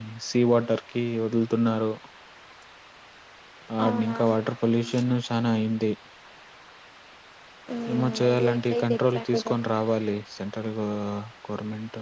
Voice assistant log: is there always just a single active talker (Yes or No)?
No